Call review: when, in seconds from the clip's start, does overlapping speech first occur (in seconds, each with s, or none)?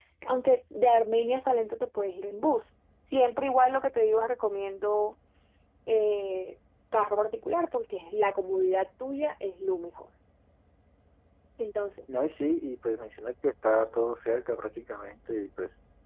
none